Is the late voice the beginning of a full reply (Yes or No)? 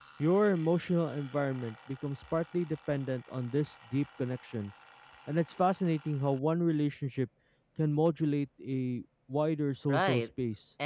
Yes